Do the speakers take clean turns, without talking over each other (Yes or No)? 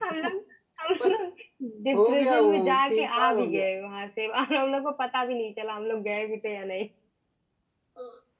No